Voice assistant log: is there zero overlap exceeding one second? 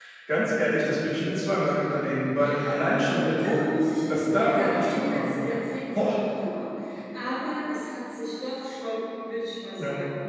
No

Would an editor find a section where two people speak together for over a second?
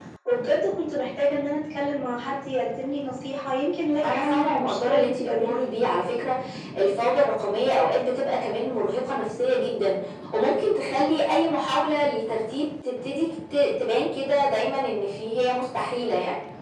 Yes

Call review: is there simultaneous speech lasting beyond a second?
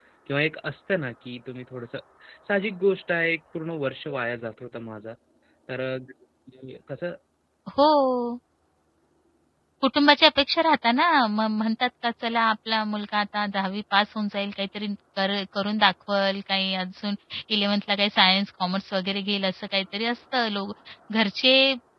No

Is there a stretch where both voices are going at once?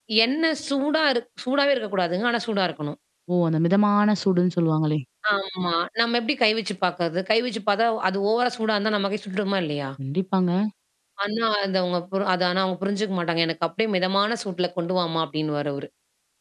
No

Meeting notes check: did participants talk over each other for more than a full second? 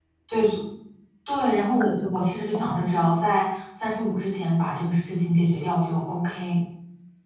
Yes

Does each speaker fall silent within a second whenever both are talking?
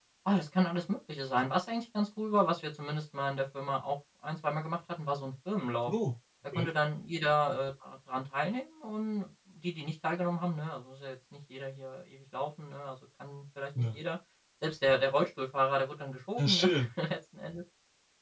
Yes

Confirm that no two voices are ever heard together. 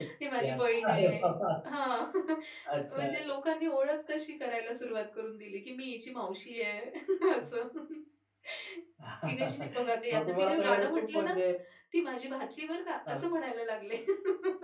No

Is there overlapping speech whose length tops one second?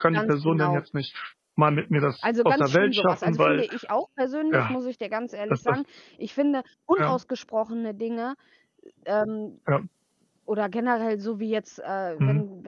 Yes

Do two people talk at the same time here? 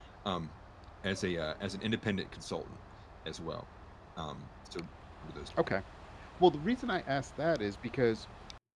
No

